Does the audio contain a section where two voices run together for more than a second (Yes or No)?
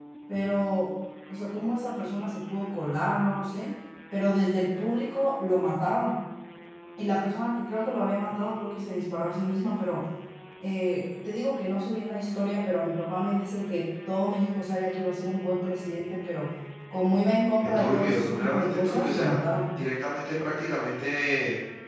Yes